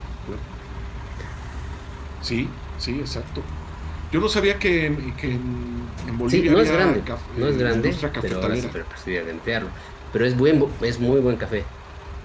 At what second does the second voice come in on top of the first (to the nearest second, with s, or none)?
6 s